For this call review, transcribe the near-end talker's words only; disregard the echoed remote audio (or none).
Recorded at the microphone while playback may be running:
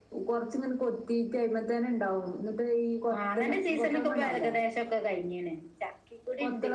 none